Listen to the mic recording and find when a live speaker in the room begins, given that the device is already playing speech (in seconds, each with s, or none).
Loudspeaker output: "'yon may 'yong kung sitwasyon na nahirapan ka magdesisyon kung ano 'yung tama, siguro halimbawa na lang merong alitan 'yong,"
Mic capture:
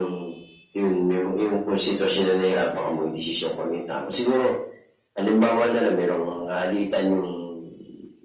none